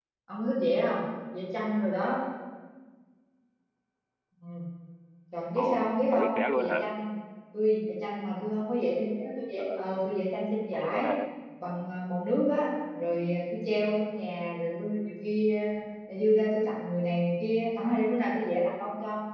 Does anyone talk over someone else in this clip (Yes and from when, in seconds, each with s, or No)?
Yes, from 5.6 s